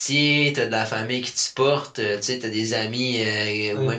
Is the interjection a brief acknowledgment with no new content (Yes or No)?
Yes